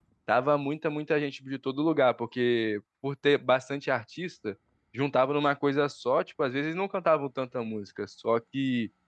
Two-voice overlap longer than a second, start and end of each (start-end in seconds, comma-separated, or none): none